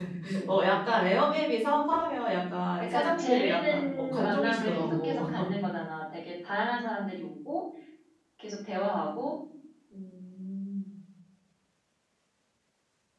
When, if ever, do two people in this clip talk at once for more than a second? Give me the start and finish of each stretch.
2.8-5.2

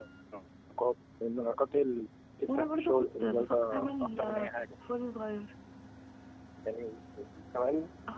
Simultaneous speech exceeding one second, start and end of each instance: 2.5-4.5

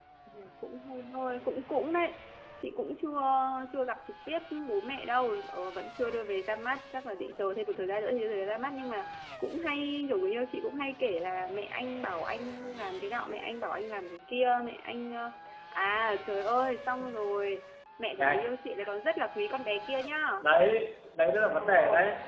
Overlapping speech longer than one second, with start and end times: none

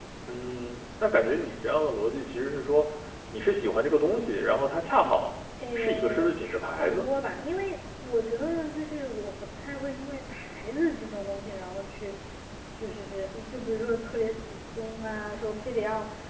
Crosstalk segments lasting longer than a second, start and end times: 5.8-7.0

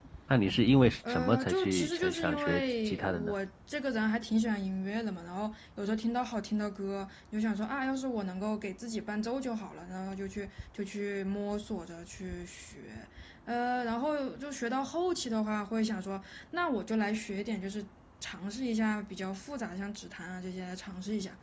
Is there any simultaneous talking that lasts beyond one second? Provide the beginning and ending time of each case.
1.1-3.3

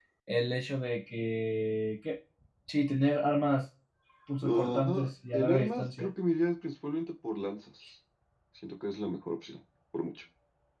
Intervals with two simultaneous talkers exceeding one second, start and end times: 4.4-6.1

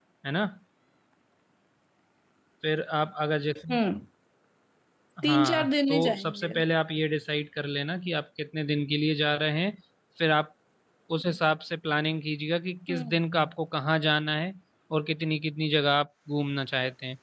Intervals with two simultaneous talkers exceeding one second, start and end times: 5.2-6.5

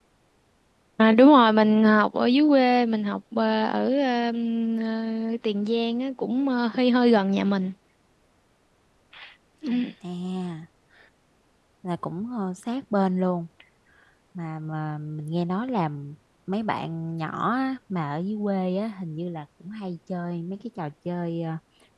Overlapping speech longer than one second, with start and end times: none

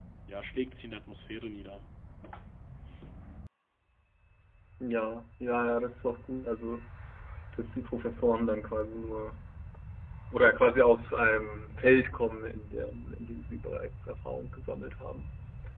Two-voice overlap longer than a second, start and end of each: none

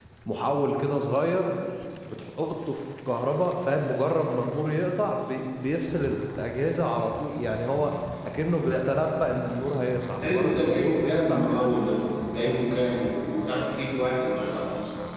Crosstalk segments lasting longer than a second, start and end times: 10.2-11.7

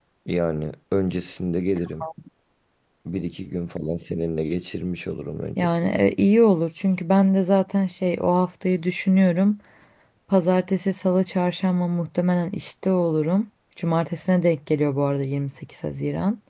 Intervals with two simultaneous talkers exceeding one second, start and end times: none

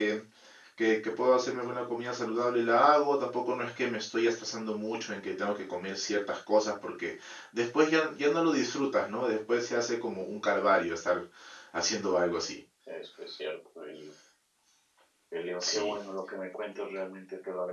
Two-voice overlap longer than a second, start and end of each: none

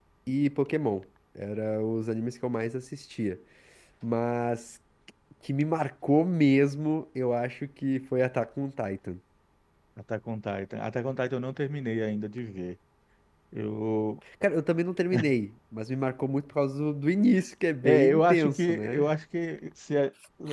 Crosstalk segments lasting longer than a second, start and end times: 17.8-19.1

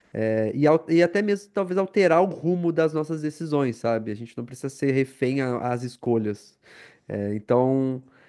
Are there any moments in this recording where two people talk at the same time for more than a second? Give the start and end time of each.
none

